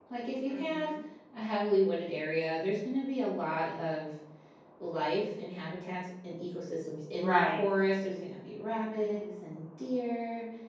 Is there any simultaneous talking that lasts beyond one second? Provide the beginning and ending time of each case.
none

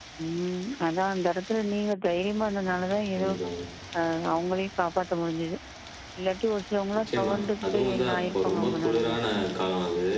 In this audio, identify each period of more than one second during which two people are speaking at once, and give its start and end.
7.0-9.2

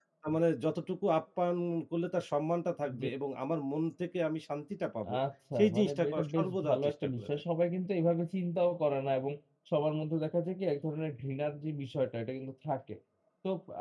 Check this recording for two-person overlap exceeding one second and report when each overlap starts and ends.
5.6-7.3

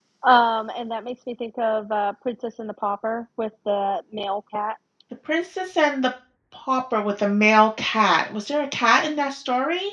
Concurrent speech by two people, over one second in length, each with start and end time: none

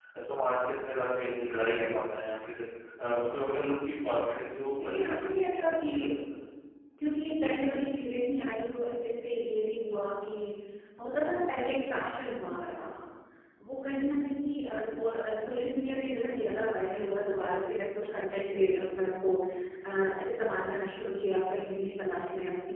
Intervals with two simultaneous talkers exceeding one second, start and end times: 4.8-6.1

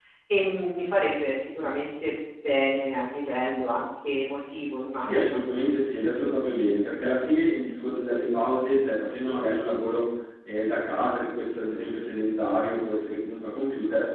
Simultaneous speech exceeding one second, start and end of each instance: none

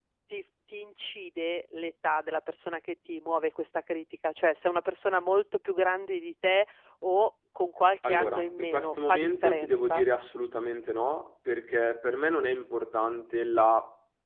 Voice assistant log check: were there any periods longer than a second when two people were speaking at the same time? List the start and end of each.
8.0-10.0

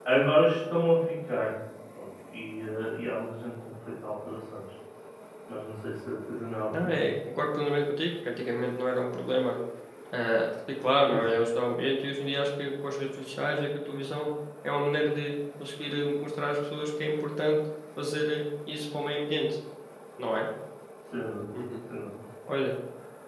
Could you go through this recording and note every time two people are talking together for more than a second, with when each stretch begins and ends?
none

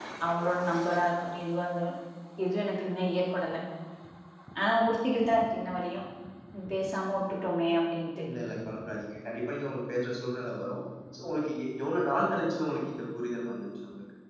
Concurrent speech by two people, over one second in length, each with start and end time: none

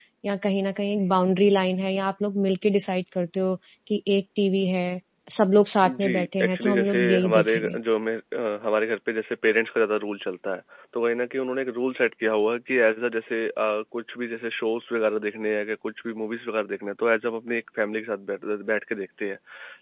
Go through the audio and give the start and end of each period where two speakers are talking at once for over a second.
5.8-7.8

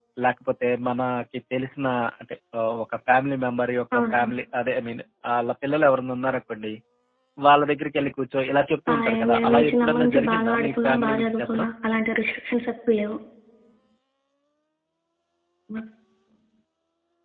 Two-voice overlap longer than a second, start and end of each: 8.9-11.7

